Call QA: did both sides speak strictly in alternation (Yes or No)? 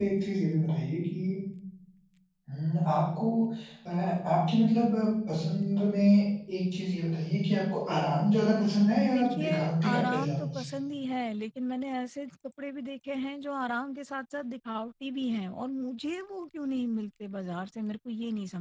No